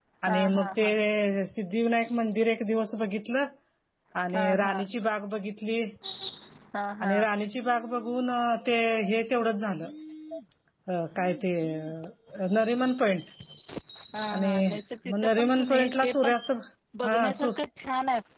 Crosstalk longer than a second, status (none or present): present